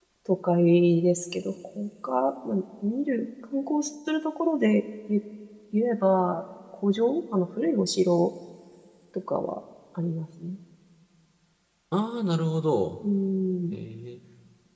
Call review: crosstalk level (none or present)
none